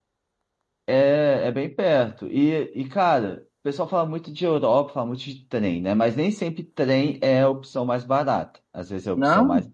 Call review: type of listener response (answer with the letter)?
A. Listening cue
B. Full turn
A